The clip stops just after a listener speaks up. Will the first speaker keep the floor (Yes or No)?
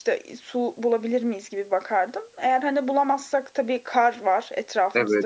No